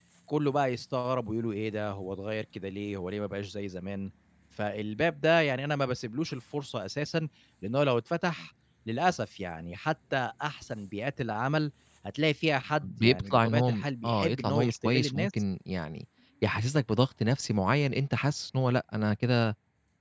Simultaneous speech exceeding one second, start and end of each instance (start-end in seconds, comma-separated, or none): 12.8-15.3